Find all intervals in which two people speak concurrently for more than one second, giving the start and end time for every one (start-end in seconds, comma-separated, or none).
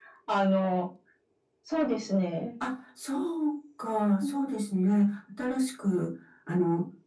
none